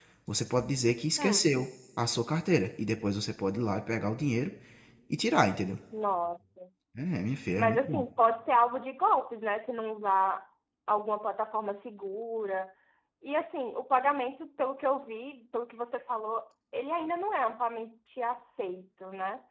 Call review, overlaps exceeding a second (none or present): none